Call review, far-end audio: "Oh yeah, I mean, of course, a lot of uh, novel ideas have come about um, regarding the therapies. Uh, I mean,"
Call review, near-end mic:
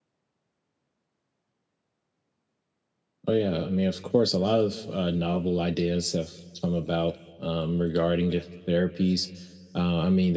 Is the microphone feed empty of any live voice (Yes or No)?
Yes